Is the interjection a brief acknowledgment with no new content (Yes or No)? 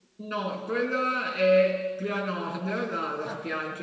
Yes